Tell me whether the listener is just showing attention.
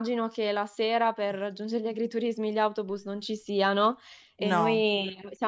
Yes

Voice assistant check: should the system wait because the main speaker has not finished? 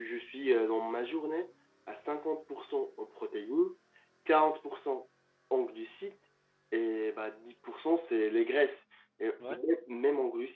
Yes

